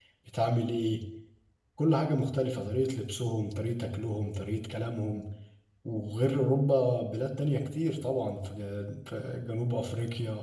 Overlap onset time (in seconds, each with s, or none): none